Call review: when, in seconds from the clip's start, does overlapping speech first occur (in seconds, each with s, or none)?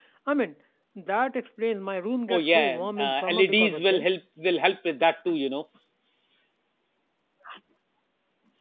2.3 s